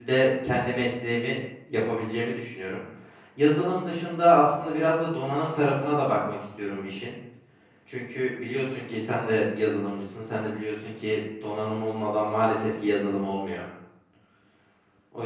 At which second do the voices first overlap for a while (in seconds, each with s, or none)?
none